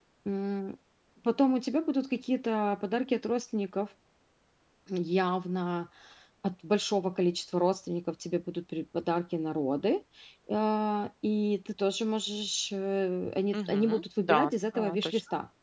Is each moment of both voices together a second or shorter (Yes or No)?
No